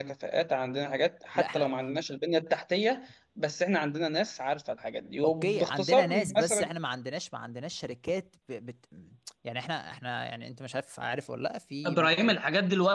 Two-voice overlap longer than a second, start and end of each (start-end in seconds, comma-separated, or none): 5.2-6.7